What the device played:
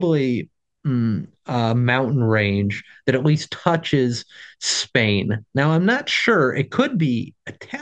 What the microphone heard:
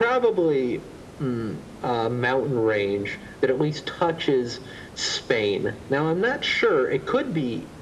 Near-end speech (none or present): none